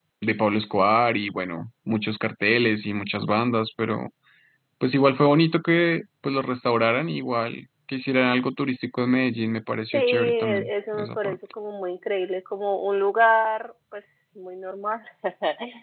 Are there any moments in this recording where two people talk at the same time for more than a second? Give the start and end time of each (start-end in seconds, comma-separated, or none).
9.9-11.4